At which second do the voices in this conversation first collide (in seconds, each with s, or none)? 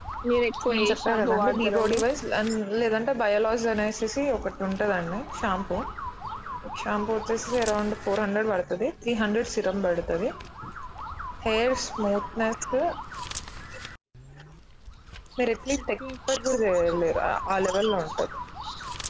0.7 s